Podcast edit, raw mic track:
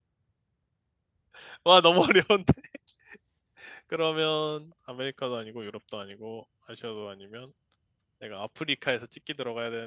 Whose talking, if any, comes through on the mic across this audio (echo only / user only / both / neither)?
user only